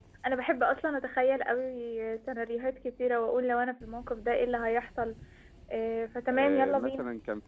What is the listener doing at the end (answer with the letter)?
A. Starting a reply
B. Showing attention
A